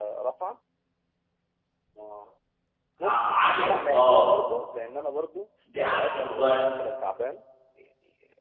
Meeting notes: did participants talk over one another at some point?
Yes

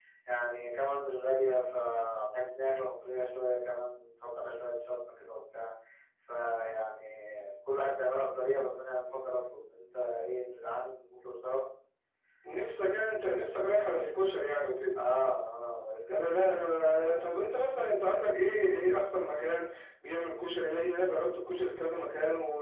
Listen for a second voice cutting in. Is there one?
Yes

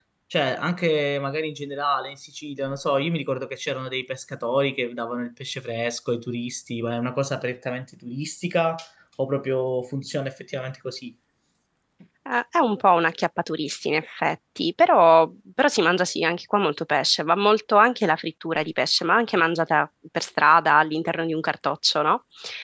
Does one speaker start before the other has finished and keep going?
No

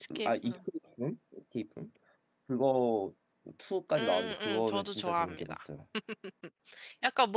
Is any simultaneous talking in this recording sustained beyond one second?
Yes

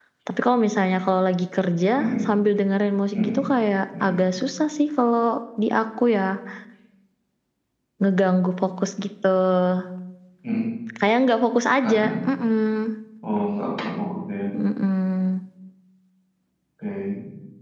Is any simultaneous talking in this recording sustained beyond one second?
No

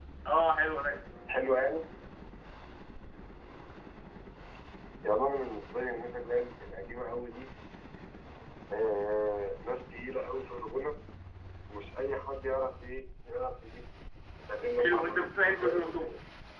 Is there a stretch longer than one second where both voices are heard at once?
Yes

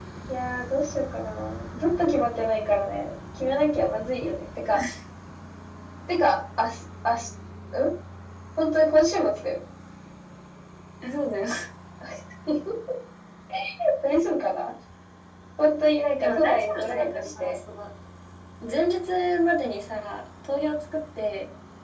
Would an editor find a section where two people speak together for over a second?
Yes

